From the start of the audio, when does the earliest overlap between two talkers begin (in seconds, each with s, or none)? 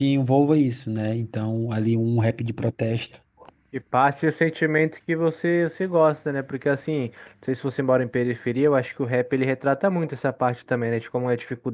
none